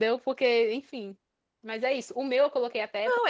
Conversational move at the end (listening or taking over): taking over